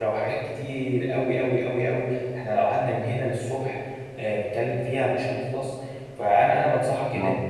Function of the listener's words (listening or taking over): listening